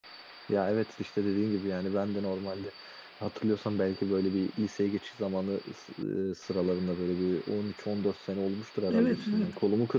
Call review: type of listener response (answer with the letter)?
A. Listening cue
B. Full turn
A